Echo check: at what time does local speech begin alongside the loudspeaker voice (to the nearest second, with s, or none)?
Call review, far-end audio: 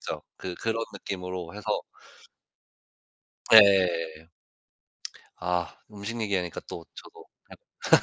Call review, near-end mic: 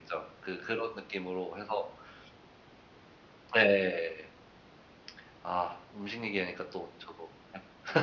none